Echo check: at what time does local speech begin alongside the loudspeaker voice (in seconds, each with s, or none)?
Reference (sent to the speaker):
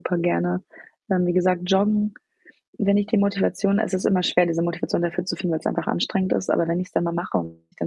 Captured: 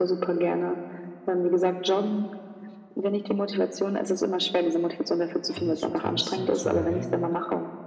5.5 s